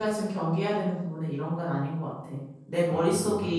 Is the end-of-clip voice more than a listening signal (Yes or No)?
No